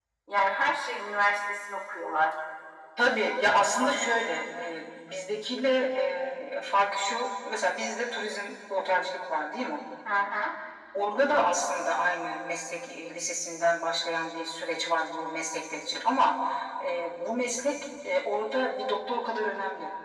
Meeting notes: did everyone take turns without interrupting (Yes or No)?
Yes